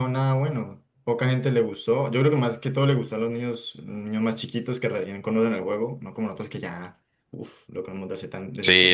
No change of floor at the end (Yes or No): No